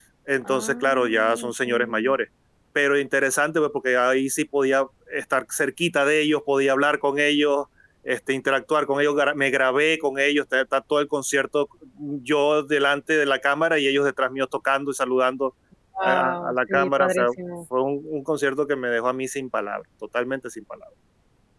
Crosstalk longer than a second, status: present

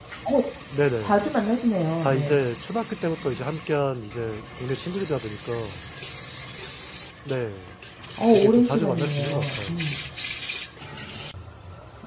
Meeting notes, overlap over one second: present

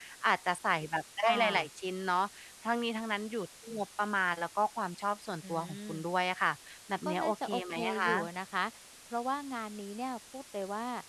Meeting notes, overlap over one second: present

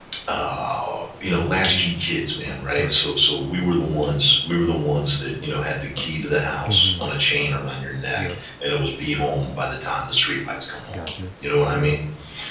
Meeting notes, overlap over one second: none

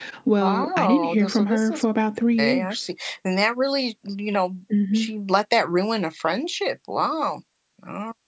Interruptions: present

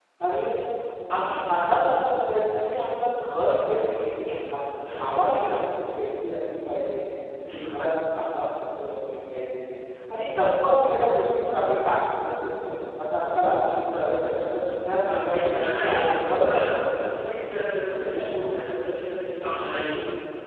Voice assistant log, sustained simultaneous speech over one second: present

